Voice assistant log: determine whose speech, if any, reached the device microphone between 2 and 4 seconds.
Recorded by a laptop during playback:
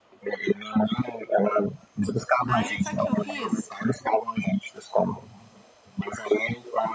both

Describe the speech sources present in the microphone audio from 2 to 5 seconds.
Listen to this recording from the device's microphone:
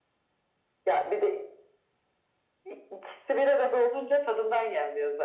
echo only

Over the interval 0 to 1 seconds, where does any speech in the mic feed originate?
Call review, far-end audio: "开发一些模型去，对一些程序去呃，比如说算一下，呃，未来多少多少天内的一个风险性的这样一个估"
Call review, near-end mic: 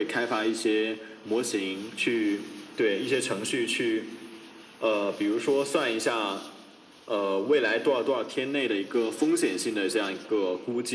echo only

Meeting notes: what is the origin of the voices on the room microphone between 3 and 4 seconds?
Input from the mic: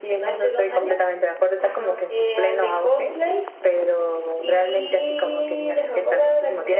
echo only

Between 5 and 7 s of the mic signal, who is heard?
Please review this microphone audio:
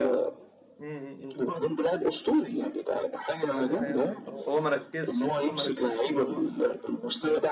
both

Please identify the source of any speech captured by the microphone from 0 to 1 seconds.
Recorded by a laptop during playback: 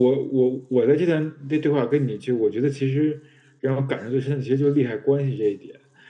echo only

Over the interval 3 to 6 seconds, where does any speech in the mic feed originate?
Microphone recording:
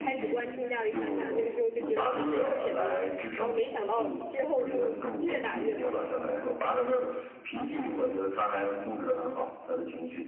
both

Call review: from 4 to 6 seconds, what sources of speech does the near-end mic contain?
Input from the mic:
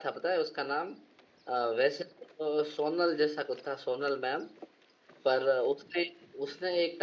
user only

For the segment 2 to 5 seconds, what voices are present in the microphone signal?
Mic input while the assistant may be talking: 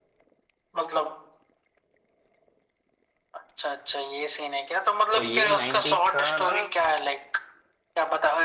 echo only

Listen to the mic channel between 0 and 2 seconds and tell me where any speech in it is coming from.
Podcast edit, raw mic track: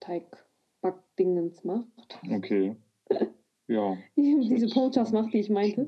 echo only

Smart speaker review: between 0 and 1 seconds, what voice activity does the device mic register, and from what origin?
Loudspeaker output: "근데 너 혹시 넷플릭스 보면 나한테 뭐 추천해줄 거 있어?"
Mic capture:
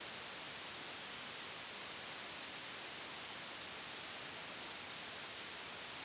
neither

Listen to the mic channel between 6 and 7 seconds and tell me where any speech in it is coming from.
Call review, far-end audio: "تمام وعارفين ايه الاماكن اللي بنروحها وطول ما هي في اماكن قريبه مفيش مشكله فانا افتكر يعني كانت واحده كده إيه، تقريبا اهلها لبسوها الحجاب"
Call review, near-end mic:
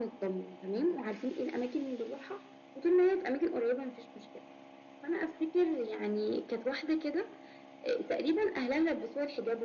echo only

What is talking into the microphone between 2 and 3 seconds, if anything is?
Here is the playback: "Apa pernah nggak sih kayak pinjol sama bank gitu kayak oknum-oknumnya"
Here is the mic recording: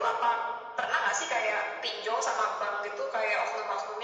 echo only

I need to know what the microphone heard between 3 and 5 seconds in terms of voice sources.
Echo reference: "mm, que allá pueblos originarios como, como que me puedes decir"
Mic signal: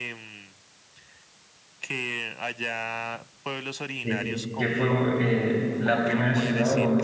both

